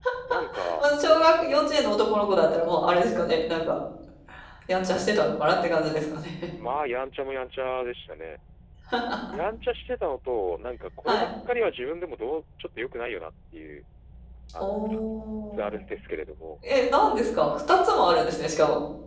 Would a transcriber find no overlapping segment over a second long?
Yes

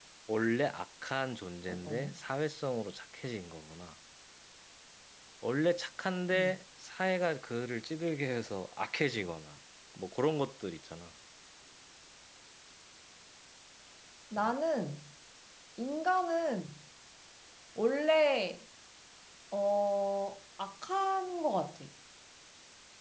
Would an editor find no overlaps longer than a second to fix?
Yes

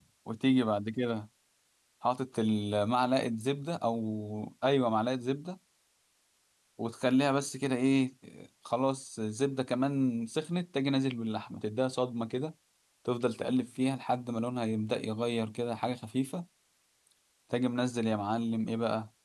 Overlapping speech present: No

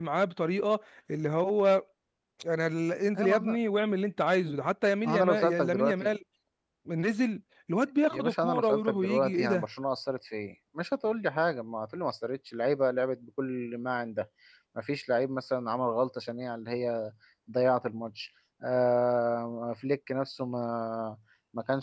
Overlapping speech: Yes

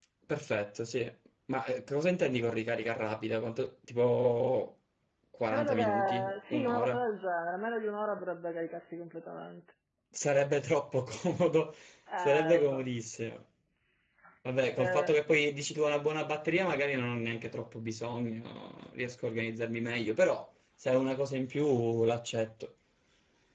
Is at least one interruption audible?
Yes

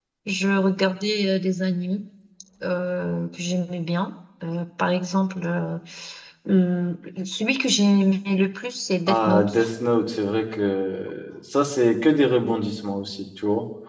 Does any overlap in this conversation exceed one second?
No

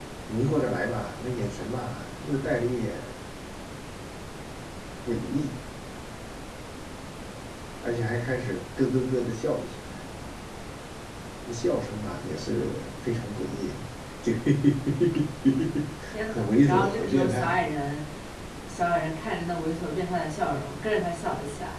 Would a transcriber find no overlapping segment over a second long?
No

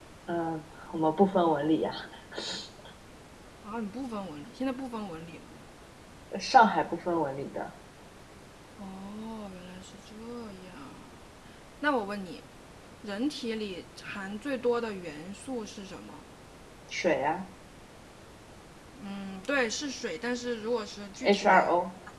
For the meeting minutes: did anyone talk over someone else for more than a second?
No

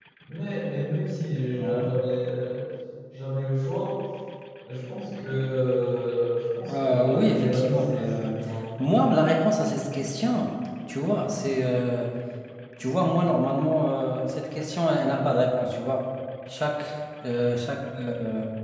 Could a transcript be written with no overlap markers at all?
No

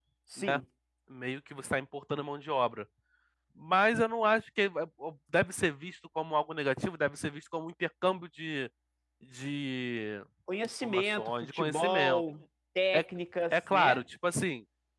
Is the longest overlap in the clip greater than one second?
Yes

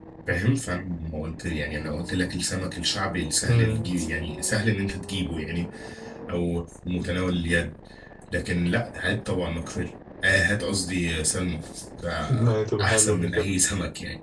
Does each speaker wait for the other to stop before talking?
No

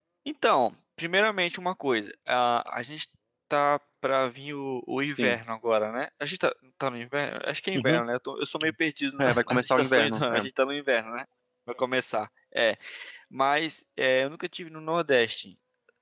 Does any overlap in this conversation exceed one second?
Yes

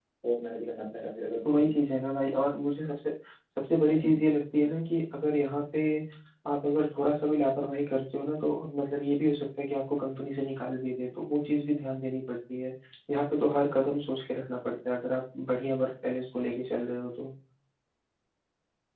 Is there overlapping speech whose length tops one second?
No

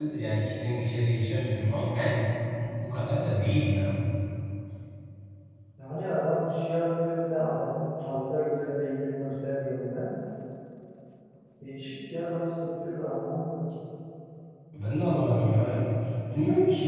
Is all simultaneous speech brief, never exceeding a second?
Yes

